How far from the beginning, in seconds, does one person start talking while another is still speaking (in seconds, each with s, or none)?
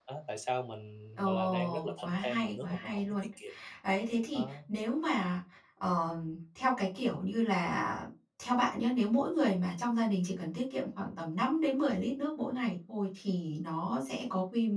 1.2 s